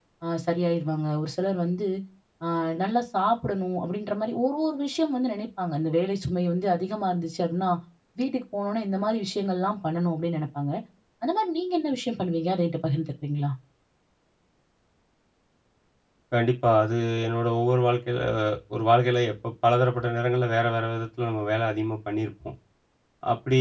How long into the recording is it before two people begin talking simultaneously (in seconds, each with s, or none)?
none